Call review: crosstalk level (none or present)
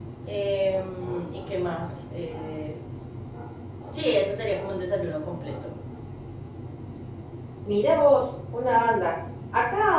none